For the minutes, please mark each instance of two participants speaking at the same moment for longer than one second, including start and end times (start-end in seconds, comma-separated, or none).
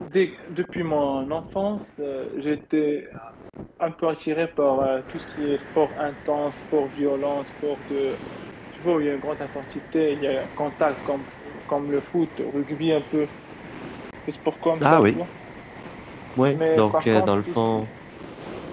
16.5-17.9